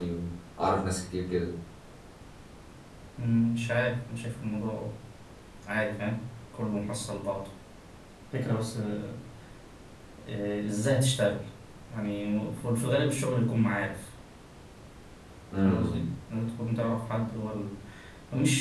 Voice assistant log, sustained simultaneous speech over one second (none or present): none